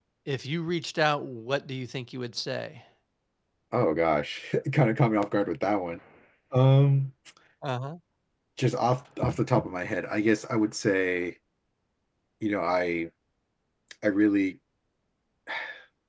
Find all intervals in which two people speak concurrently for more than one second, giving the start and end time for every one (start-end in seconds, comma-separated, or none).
none